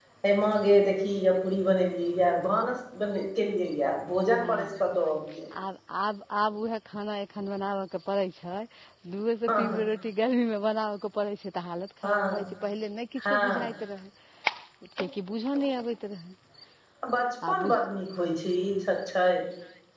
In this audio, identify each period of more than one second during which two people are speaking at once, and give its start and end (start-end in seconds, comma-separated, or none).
none